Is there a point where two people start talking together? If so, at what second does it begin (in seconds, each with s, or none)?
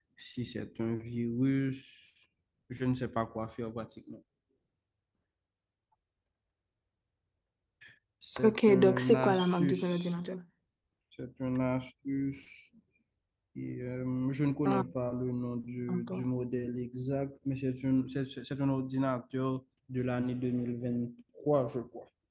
8.4 s